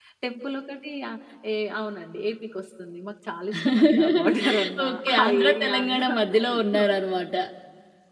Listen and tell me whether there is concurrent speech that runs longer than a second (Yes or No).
Yes